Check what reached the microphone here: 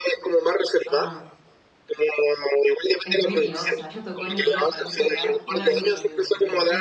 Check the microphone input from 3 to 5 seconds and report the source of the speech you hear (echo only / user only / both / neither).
both